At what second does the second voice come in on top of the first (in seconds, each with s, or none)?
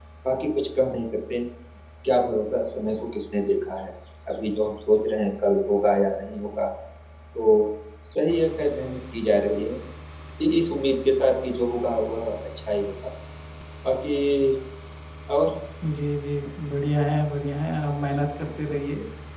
none